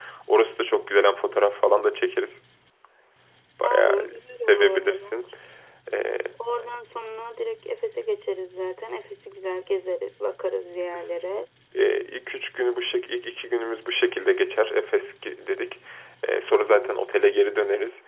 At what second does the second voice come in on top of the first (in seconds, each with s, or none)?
3.6 s